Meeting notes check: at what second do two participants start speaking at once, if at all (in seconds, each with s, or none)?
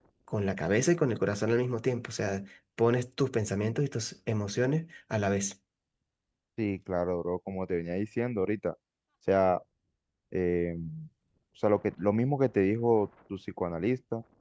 none